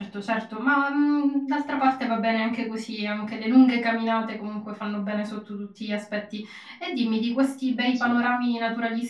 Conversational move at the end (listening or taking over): listening